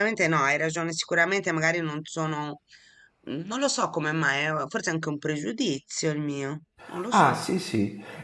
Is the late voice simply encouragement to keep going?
No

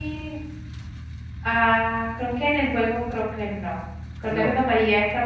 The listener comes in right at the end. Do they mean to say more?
No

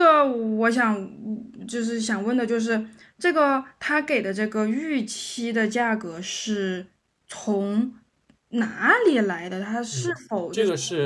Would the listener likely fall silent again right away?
No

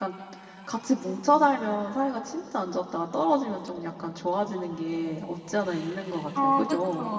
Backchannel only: No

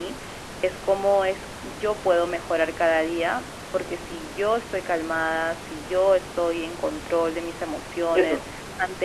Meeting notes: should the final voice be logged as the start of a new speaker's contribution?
No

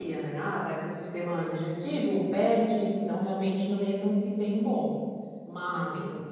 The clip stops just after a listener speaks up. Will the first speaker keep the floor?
Yes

